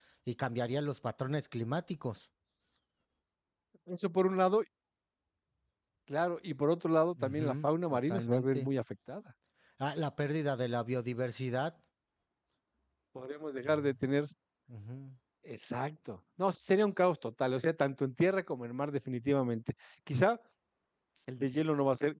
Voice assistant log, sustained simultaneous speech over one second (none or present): present